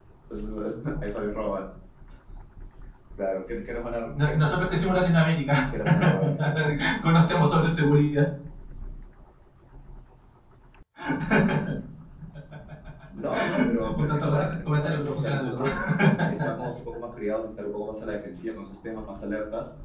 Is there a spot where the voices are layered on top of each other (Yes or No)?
Yes